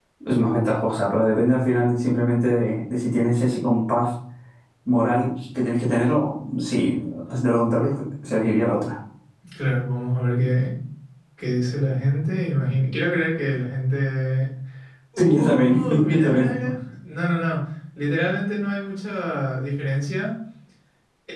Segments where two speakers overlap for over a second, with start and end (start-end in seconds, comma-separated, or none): 15.2-16.6